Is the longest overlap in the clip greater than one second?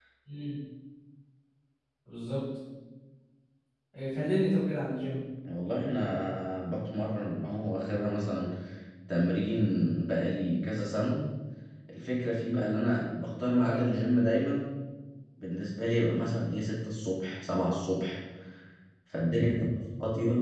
No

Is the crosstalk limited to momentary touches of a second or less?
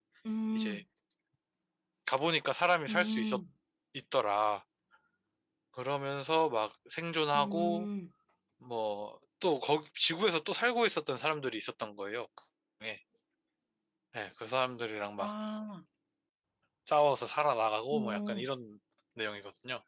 Yes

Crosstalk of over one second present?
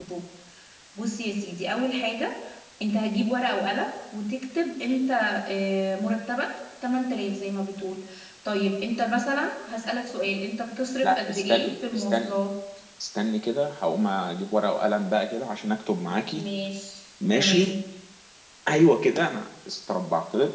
Yes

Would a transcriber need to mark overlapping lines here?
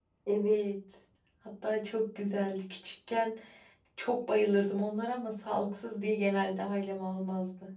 No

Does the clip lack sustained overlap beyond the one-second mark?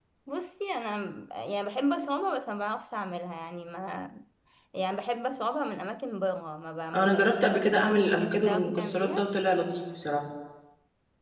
No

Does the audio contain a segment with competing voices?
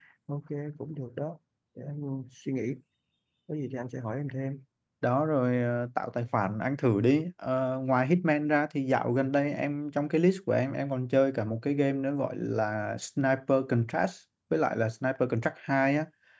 No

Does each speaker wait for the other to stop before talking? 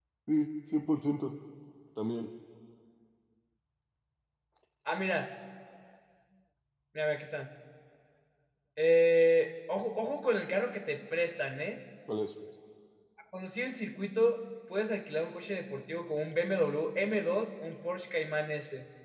Yes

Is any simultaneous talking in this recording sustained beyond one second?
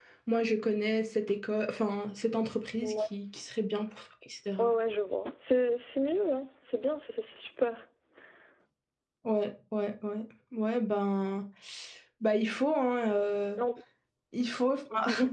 No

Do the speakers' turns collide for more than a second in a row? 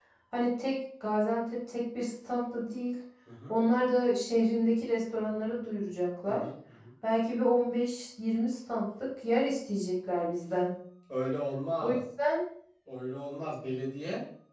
No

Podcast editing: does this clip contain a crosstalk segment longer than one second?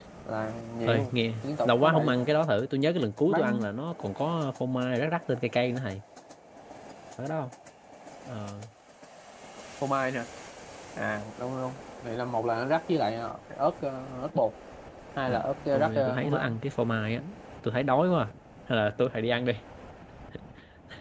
Yes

